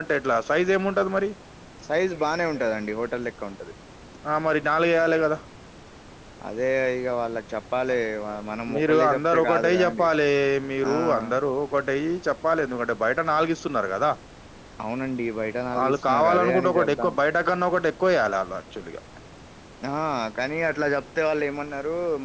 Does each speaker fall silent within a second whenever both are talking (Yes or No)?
No